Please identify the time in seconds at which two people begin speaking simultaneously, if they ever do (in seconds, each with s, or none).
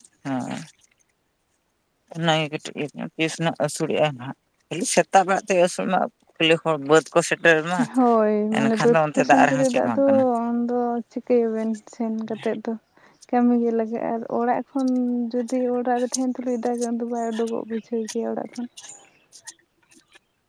8.6 s